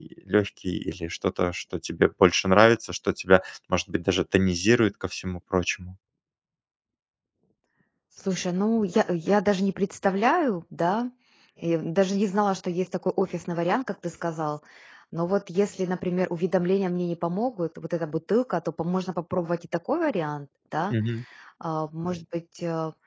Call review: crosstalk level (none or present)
none